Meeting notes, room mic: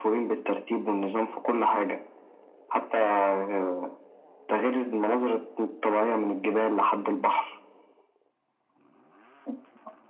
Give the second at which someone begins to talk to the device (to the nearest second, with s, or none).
none